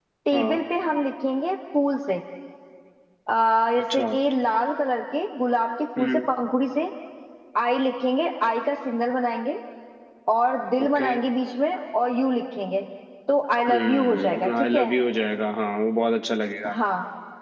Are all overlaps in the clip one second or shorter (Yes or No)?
No